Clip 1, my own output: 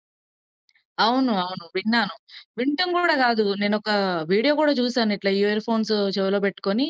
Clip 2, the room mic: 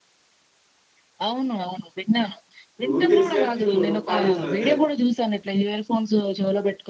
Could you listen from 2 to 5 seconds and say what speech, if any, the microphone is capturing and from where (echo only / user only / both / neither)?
both